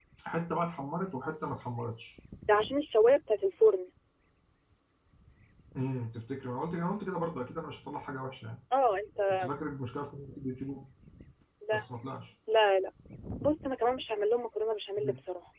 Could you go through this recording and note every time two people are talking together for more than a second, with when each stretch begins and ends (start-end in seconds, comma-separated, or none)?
none